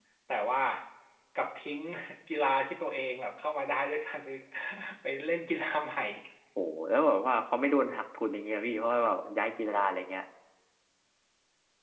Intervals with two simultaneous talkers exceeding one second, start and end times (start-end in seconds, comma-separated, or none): none